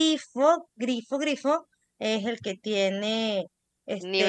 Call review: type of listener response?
taking over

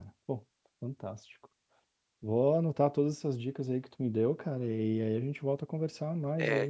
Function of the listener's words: taking over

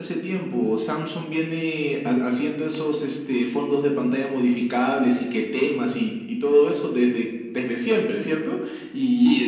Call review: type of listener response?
taking over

